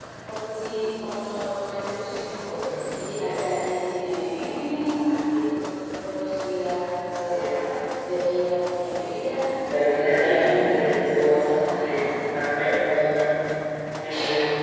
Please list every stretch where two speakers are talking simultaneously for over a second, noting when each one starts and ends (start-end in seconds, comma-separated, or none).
9.9-11.9